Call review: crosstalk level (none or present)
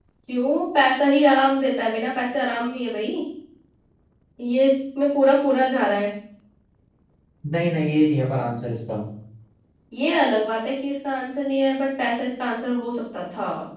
none